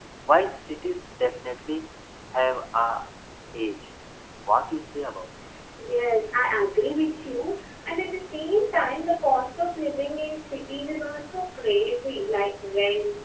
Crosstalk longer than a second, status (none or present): none